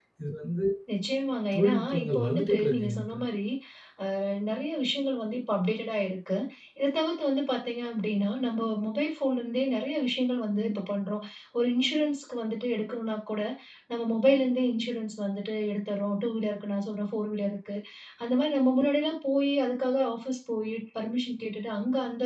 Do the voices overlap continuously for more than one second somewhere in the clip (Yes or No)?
Yes